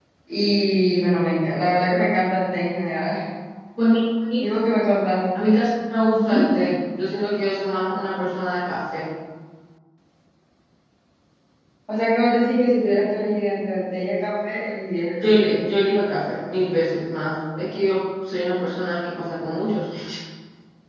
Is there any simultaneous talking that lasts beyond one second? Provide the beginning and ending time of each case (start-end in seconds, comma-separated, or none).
none